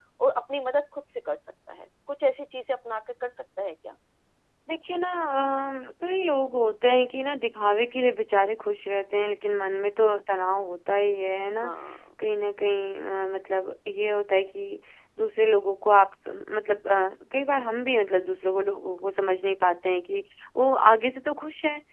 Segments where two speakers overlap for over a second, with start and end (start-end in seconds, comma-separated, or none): none